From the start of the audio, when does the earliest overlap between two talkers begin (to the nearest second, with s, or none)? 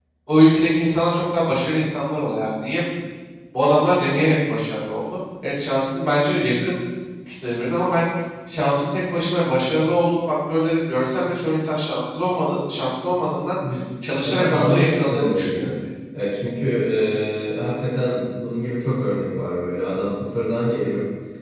14 s